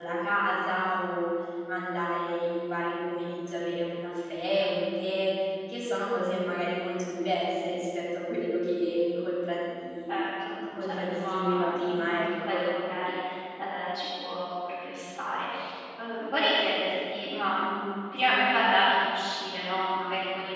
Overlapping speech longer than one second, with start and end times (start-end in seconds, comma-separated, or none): 10.8-12.7